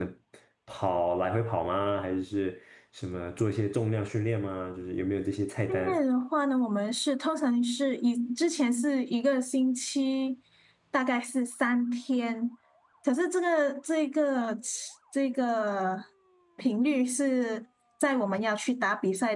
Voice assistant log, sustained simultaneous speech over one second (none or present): none